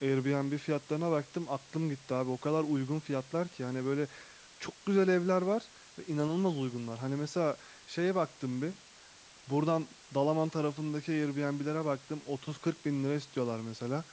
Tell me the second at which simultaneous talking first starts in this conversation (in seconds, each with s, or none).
none